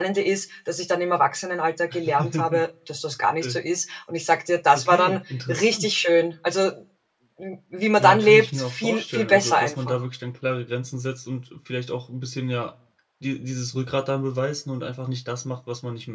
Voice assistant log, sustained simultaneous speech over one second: present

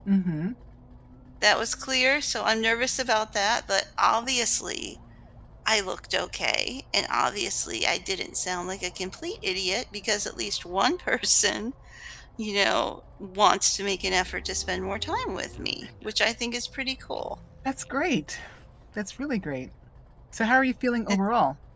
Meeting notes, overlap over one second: none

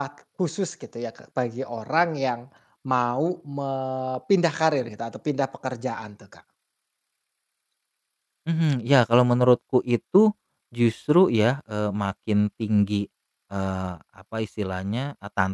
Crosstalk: none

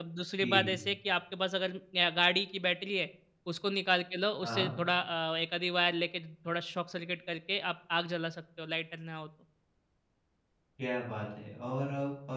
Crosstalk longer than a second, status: none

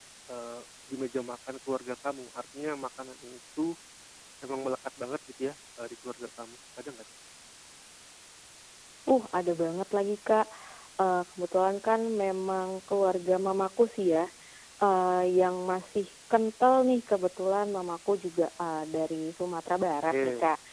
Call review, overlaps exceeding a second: none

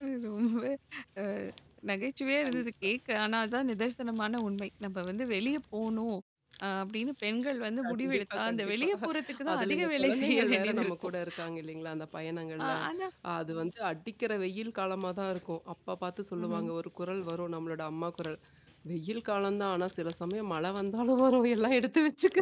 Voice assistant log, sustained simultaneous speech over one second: present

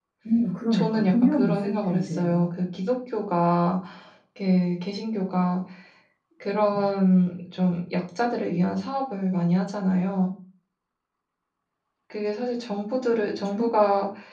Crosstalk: present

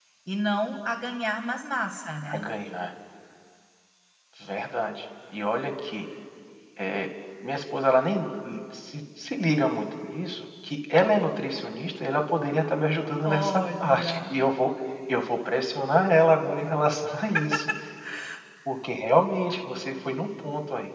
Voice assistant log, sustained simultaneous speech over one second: present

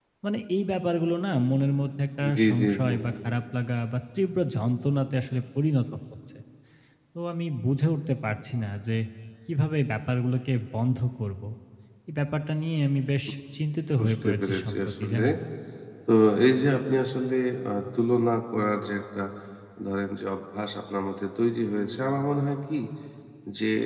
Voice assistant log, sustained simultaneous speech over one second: present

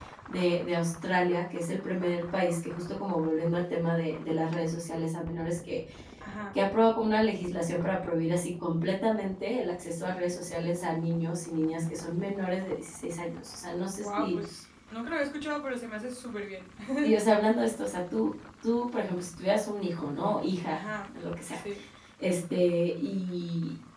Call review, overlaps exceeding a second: none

